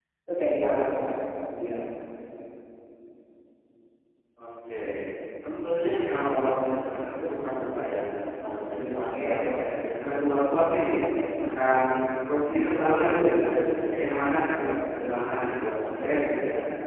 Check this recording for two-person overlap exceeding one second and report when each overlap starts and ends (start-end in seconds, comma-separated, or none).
none